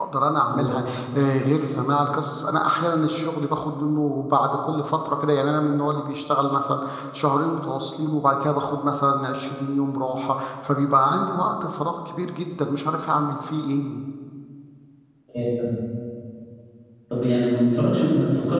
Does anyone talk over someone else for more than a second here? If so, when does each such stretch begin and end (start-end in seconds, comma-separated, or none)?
none